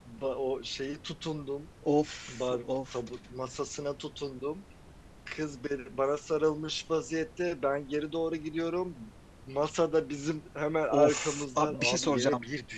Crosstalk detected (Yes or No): Yes